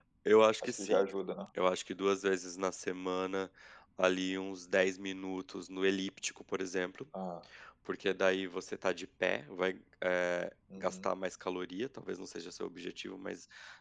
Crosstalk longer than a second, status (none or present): none